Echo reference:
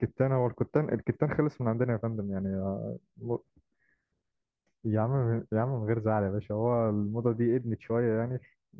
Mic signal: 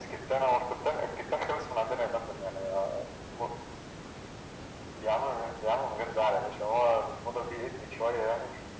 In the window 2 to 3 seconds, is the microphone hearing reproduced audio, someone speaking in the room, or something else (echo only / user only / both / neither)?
echo only